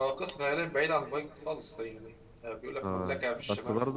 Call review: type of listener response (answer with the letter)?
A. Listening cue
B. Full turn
B